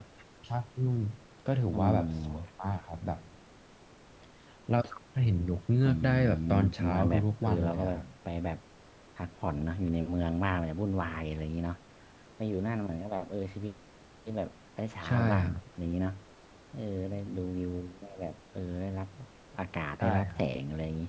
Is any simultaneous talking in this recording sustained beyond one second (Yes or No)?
Yes